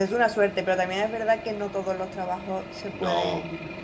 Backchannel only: Yes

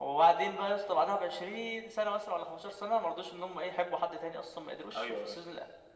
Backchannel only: Yes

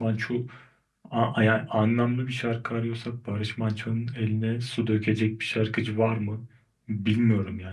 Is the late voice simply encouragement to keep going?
No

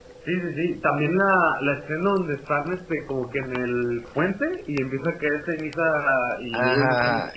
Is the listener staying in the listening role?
No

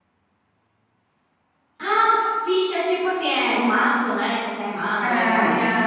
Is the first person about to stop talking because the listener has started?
Yes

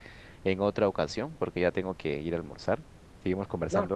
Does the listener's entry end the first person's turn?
Yes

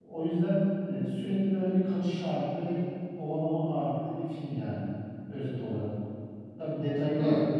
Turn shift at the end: No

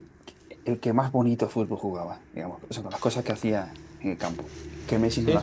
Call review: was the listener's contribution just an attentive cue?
No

